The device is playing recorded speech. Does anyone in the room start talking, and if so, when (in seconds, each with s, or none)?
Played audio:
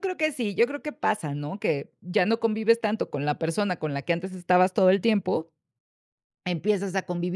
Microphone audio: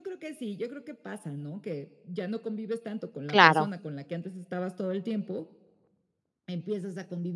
3.3 s